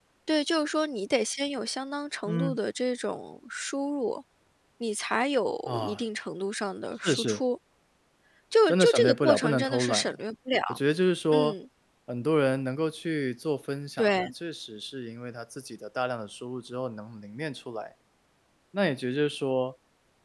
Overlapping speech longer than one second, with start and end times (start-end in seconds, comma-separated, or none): 8.7-10.2